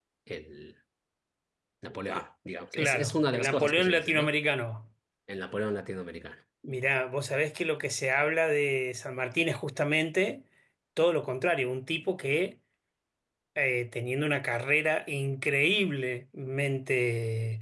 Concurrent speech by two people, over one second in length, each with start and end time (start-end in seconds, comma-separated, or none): 2.7-4.3